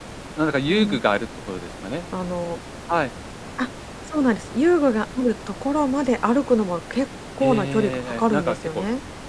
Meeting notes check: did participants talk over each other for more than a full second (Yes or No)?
Yes